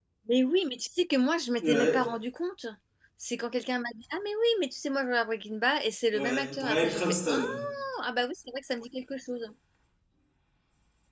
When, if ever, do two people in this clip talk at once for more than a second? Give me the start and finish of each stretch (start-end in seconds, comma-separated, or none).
6.2-7.4